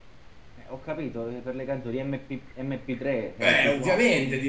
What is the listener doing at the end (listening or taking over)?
taking over